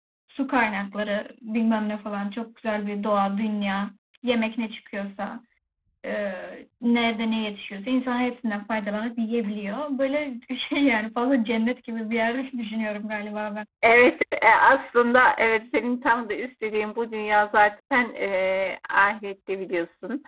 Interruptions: none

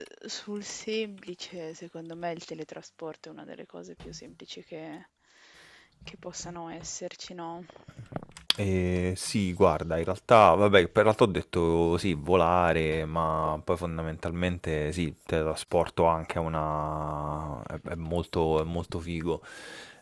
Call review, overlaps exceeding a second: none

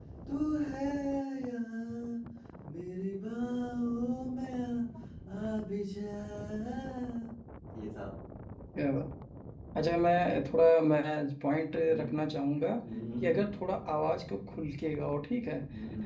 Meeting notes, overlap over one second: none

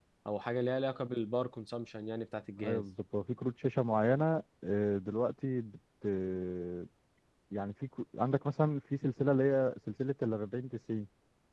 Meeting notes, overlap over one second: none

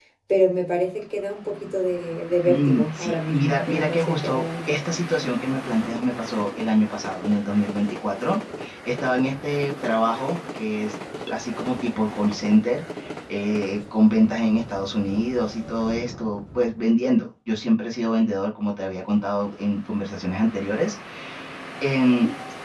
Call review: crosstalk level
present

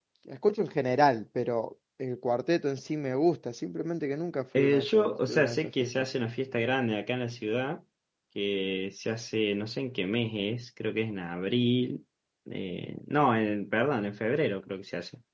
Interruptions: present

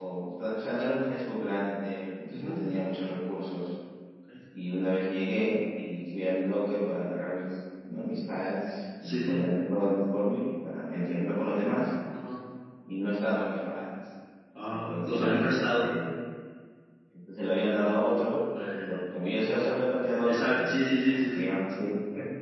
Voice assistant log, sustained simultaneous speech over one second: present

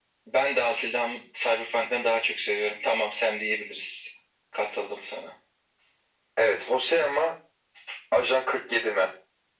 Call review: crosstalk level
none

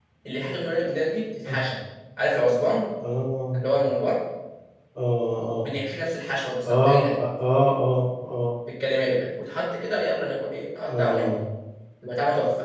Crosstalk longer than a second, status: none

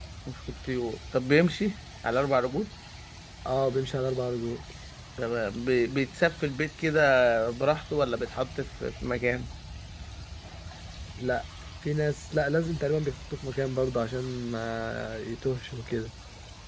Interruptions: none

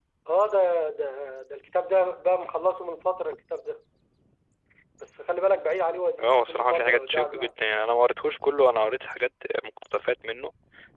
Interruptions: present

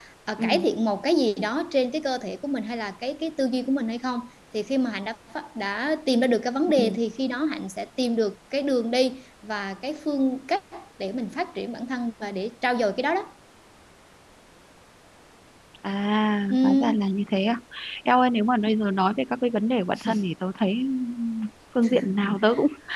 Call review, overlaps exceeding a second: none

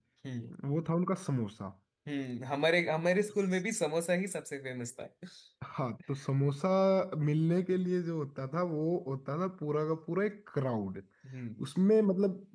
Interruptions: none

